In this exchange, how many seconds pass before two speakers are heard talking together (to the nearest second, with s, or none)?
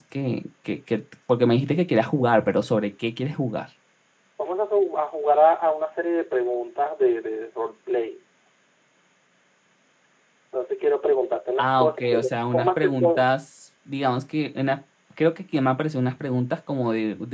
12 s